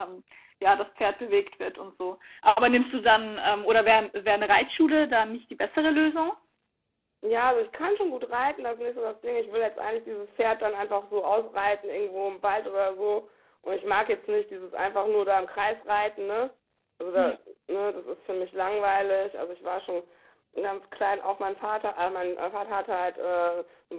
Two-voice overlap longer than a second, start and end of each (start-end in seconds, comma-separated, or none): none